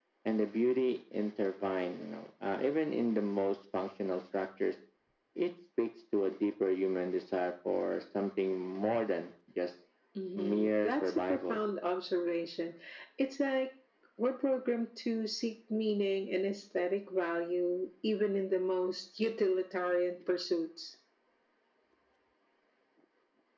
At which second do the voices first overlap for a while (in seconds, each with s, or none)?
10.4 s